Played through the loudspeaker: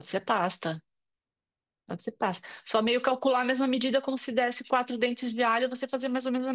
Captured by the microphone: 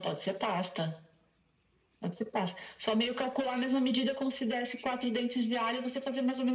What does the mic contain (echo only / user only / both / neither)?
echo only